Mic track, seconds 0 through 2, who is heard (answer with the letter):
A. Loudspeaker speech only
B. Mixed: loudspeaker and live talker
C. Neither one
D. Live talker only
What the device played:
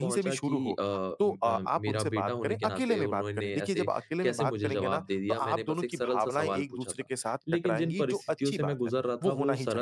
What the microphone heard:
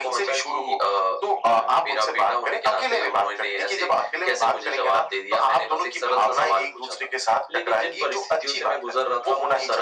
A